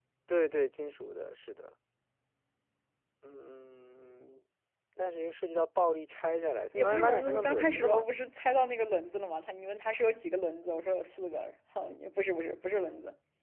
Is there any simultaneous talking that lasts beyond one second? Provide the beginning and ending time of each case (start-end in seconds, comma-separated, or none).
6.7-8.1